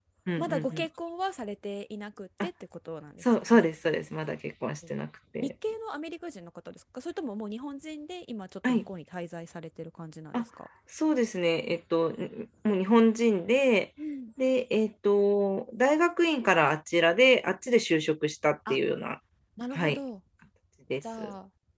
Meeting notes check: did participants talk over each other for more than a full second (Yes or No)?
No